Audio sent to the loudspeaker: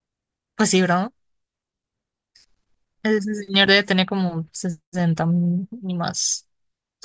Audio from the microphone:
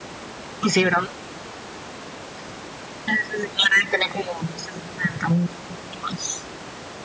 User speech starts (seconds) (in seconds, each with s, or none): none